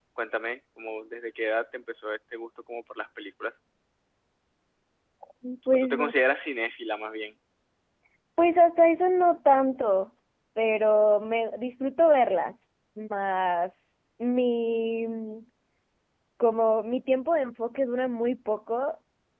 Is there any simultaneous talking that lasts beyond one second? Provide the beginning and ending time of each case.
none

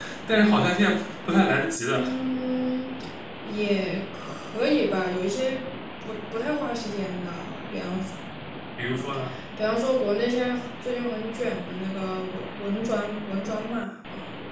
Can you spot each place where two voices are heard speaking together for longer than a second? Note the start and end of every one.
none

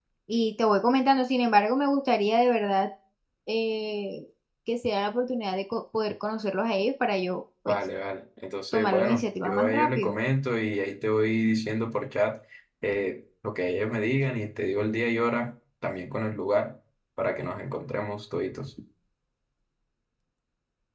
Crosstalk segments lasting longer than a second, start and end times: 8.7-10.1

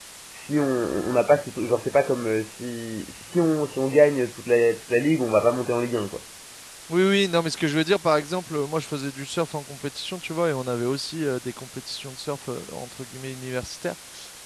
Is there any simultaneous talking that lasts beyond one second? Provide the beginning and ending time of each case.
none

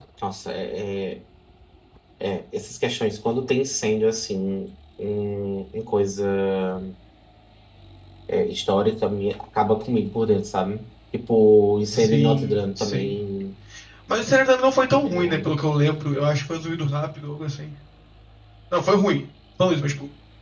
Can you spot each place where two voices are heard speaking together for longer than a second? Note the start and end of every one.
11.9-13.2

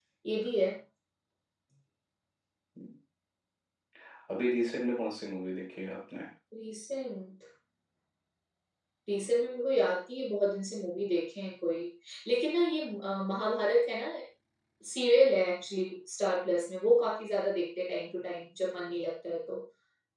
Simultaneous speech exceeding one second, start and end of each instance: none

